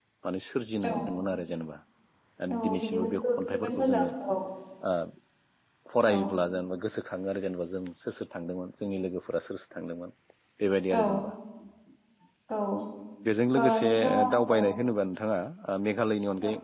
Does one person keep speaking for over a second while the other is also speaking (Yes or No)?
Yes